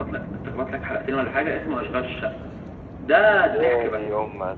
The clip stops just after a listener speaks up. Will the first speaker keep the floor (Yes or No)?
No